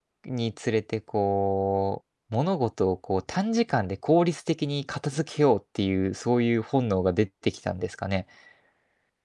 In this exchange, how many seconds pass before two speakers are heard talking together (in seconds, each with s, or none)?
none